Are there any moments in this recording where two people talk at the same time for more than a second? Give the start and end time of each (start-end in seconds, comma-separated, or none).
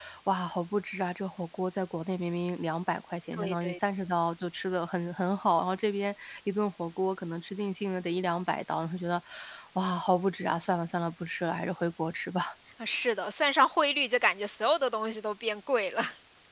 none